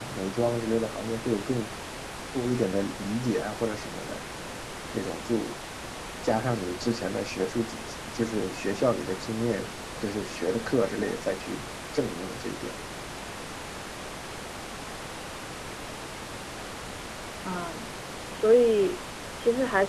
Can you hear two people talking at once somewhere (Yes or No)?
No